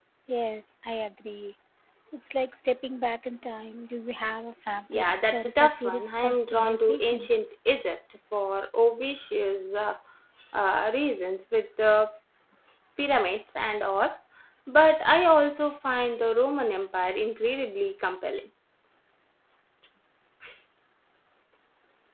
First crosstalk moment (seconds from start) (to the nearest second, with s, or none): 5 s